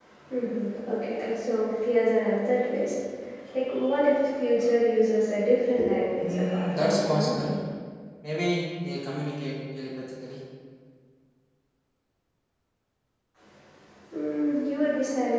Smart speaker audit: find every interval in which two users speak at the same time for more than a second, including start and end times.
6.2-7.4

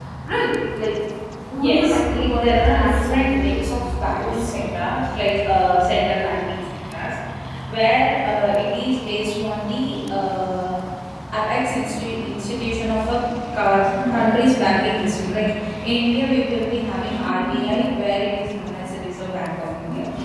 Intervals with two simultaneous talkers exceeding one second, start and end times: 1.6-3.7

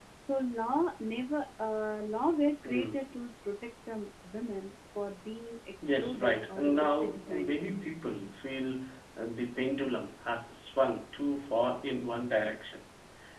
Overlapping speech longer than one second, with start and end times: 6.0-7.6

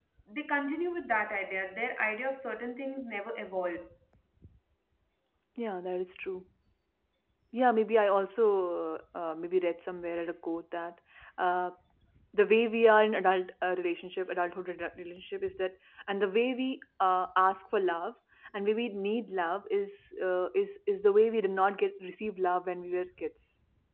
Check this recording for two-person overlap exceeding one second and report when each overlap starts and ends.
none

